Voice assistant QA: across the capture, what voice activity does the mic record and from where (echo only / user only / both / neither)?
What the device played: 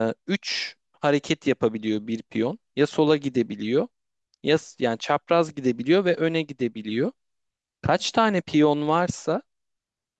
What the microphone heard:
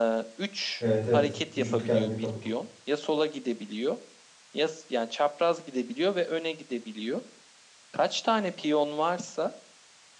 both